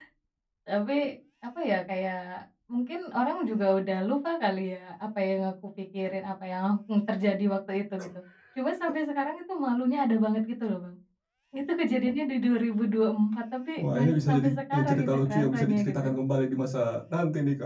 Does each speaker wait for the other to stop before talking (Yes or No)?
No